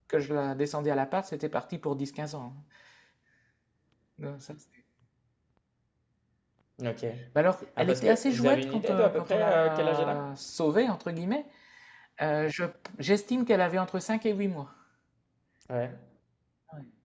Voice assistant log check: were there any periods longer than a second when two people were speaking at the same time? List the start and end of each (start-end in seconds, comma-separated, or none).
7.8-10.2